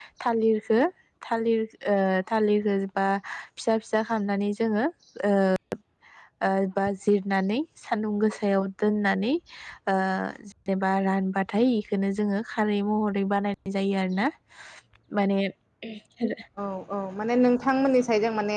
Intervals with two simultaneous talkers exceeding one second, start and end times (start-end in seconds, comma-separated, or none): none